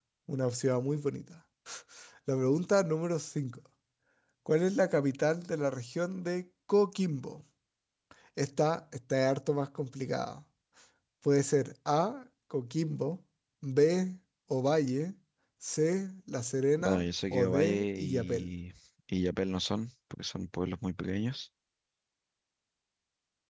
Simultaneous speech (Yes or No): Yes